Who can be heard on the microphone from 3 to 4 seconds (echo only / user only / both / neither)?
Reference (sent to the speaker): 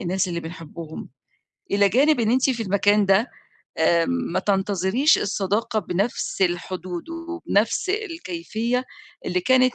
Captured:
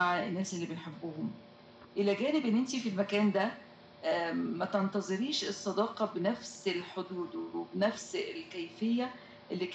echo only